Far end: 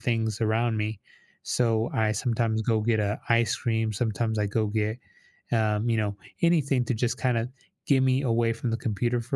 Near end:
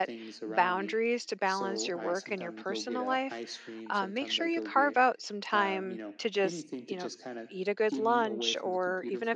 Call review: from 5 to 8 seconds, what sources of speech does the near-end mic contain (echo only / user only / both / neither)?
both